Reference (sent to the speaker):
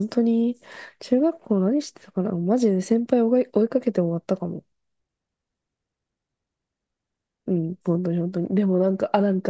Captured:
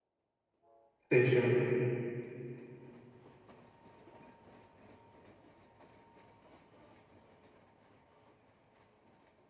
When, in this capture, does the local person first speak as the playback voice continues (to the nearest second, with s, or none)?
1 s